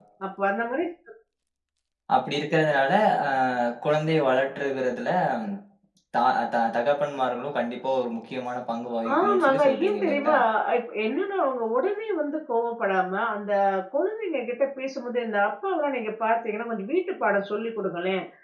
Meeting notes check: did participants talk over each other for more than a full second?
Yes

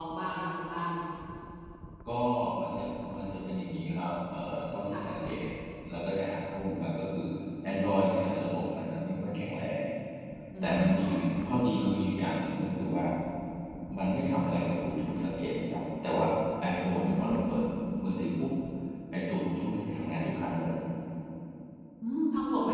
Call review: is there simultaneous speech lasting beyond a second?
No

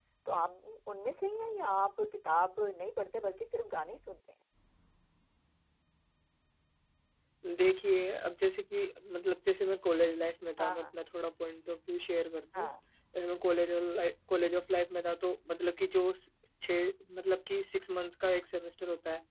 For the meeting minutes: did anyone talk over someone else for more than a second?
No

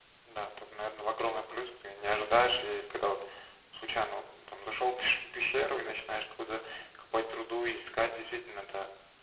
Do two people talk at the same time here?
No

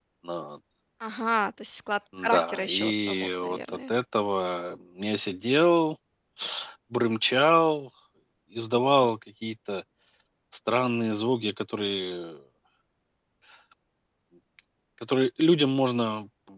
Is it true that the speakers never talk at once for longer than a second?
No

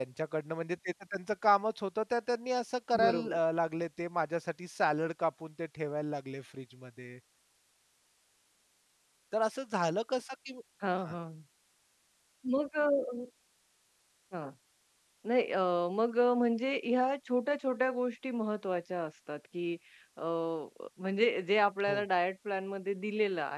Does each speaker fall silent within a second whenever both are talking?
Yes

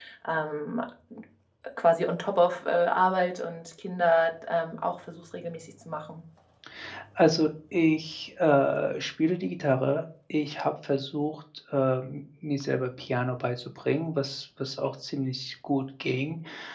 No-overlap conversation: Yes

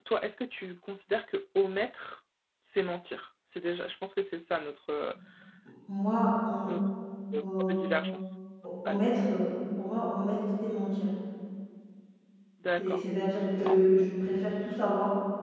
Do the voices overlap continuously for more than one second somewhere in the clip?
No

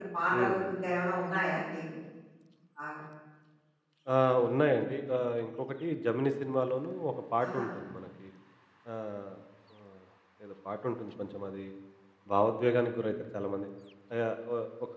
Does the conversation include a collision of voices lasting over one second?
No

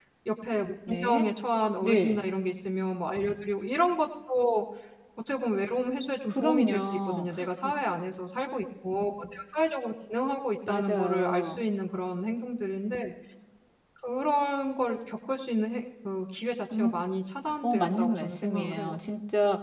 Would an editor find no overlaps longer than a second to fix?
No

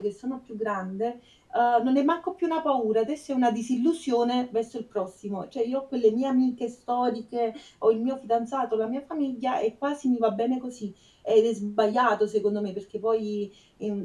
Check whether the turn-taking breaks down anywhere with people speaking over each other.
No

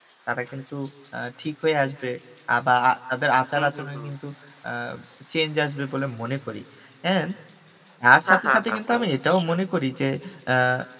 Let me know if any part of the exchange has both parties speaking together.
Yes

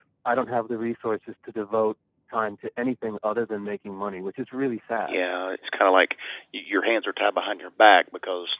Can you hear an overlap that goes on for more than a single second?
No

